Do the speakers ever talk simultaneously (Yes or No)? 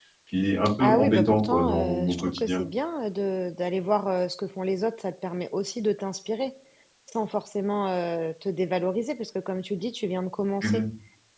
Yes